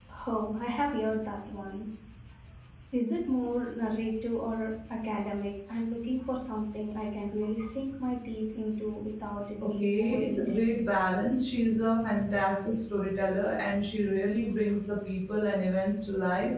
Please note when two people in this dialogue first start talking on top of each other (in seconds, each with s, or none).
9.6 s